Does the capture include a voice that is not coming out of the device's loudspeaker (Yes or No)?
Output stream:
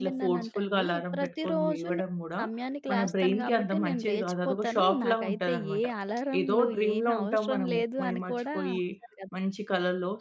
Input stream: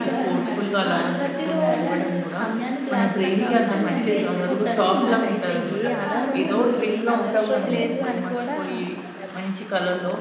Yes